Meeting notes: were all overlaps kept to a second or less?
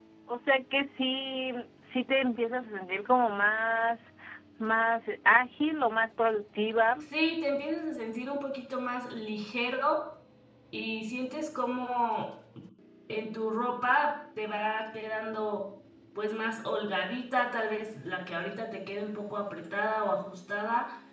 Yes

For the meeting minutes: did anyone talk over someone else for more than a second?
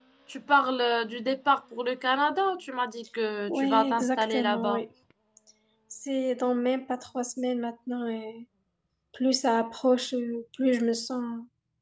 Yes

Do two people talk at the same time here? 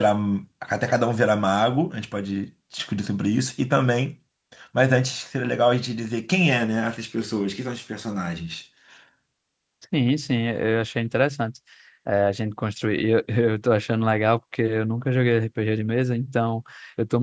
No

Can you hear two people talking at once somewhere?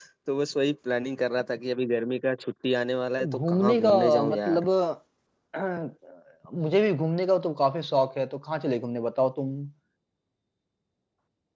Yes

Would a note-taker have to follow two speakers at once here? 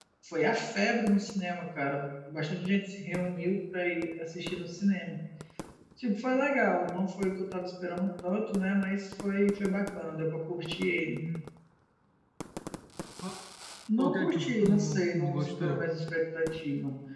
Yes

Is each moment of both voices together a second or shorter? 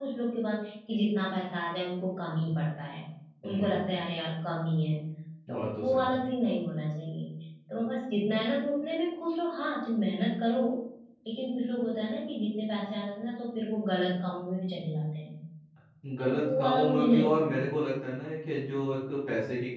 No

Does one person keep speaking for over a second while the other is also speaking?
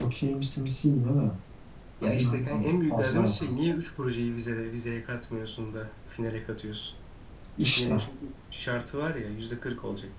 Yes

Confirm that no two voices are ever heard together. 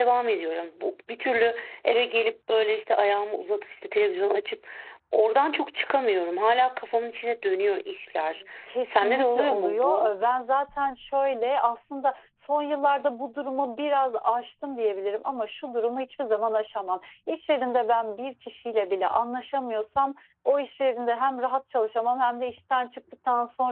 No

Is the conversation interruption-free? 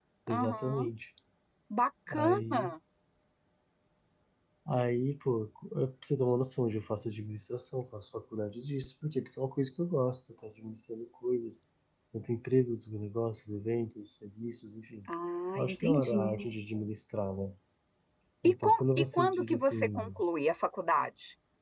No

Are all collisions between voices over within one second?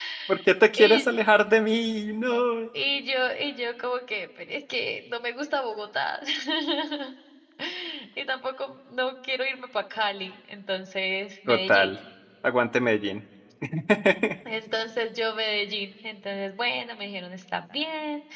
Yes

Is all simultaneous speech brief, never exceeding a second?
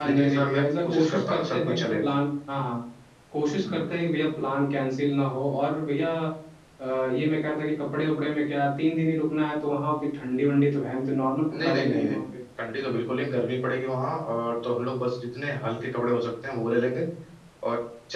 No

